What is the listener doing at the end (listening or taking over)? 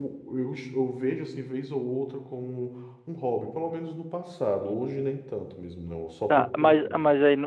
taking over